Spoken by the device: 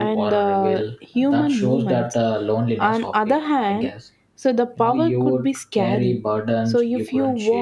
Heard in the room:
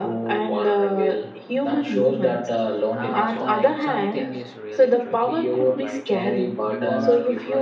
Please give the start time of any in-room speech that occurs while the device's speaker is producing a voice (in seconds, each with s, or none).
2.9 s